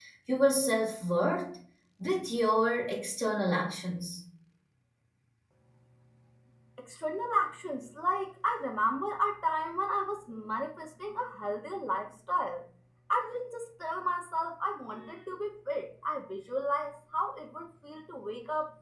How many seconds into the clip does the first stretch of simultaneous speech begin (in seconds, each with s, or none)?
none